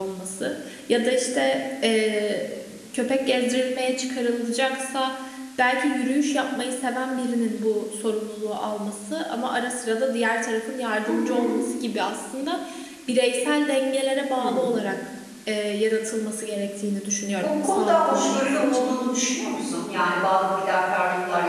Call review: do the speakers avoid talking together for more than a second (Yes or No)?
No